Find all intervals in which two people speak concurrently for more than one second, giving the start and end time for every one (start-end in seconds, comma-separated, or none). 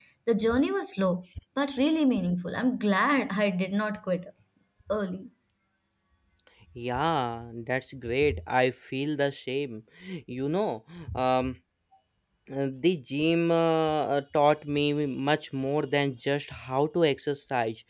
none